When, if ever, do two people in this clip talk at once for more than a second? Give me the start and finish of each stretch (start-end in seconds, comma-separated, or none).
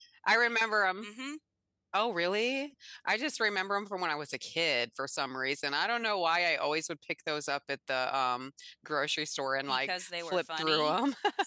9.7-11.0